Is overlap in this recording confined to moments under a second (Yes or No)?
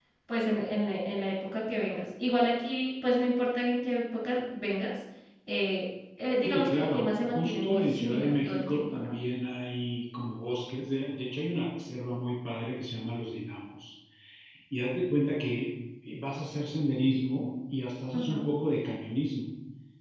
No